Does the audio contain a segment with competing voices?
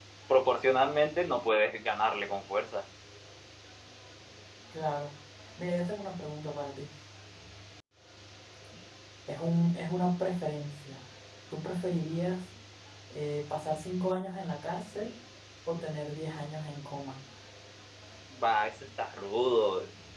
No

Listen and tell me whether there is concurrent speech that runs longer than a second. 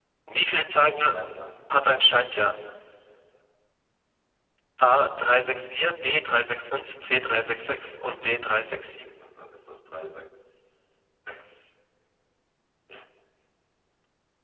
Yes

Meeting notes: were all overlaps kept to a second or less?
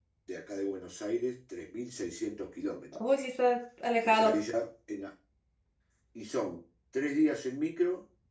Yes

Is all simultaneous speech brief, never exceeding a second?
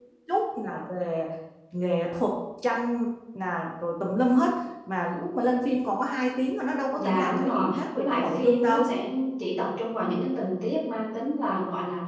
No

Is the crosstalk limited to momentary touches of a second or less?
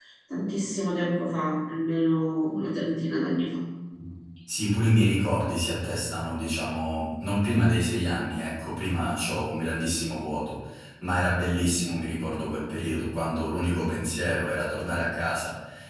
Yes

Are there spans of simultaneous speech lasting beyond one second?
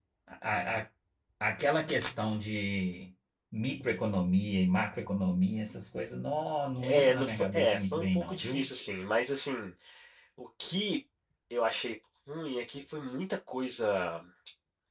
Yes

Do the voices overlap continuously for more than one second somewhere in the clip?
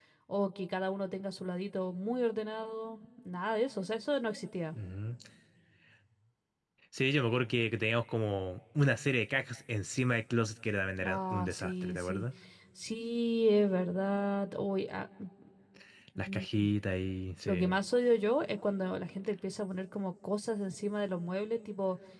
Yes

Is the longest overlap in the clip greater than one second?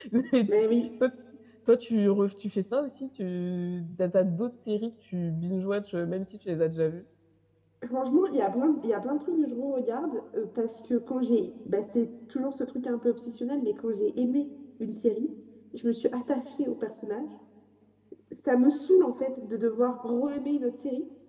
No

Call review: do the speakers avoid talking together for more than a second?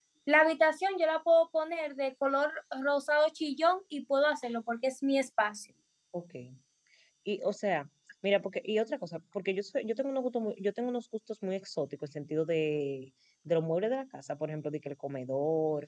Yes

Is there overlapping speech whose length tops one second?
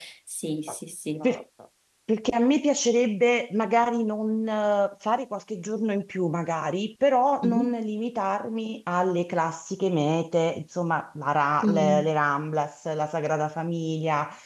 No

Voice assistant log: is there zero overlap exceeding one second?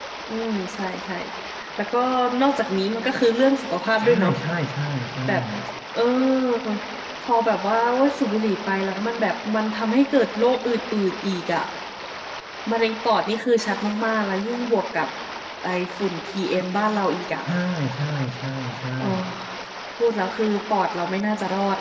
Yes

